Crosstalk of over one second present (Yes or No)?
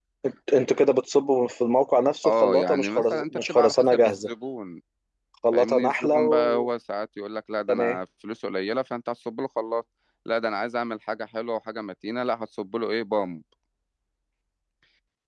Yes